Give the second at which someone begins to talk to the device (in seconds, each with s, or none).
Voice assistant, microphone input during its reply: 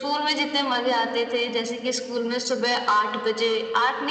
none